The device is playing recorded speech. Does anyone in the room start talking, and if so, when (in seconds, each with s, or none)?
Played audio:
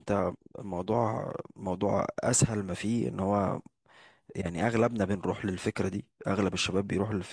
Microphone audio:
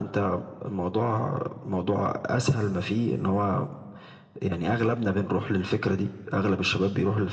none